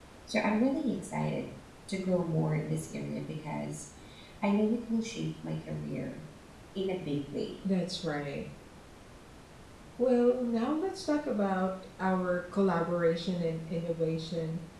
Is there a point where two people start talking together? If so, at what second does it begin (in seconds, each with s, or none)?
none